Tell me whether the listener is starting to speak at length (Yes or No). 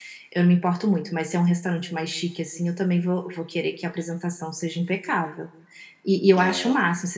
No